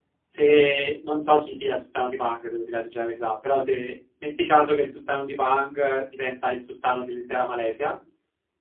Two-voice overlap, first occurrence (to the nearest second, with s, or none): none